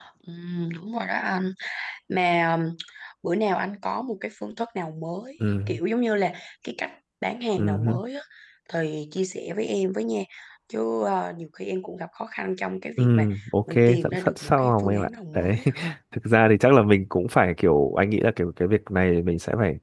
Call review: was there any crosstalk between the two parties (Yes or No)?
Yes